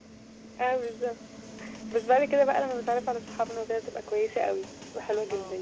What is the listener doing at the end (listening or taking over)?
taking over